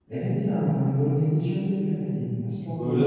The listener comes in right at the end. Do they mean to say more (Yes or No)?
Yes